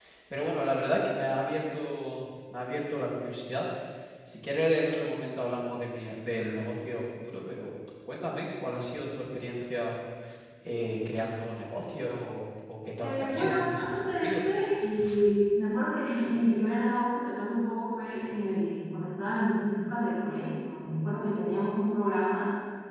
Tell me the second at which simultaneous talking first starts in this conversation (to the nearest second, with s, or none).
13 s